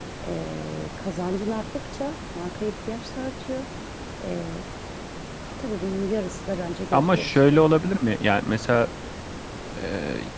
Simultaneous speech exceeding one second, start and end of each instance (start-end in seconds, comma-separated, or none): none